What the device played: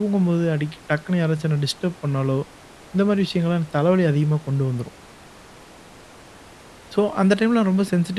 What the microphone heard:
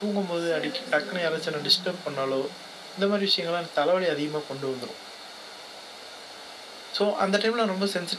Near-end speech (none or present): present